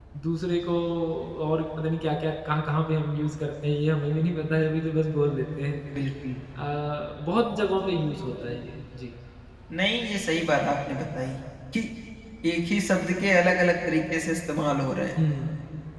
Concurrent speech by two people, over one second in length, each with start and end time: none

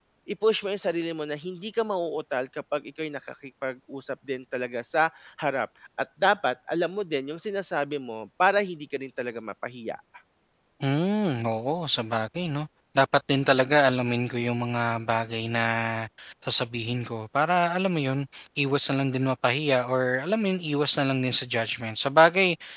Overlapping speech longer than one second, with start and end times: none

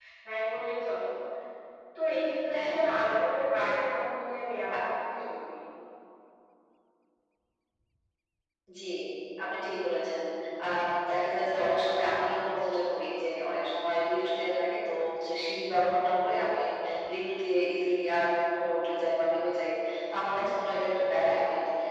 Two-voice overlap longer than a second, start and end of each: none

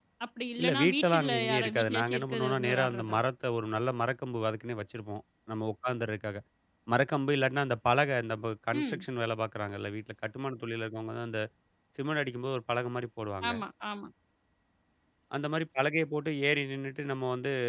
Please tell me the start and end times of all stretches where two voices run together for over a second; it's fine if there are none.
0.6-3.2

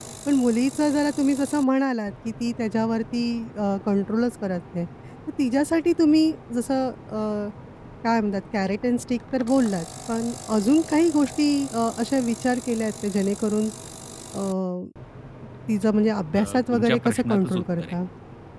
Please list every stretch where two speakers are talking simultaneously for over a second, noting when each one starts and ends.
16.3-17.9

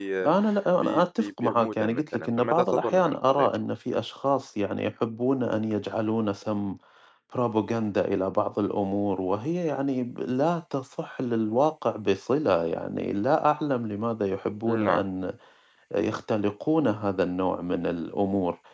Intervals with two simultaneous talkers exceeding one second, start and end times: 0.8-3.5

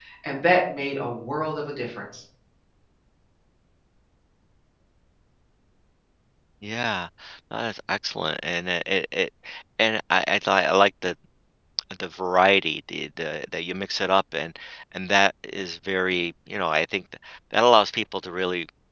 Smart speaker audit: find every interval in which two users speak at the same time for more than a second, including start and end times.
none

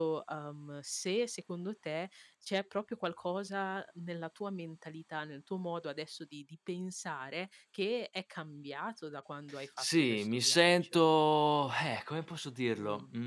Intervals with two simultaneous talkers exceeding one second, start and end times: 9.8-11.0

